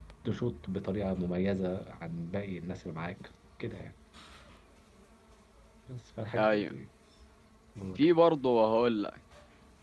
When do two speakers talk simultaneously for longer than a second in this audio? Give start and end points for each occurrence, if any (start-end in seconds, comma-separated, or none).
none